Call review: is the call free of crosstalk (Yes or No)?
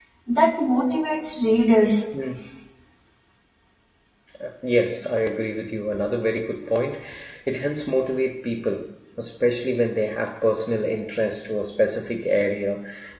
Yes